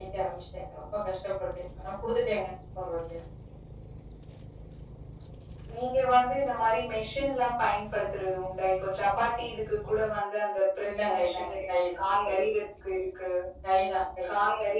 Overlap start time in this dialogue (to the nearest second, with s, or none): 11 s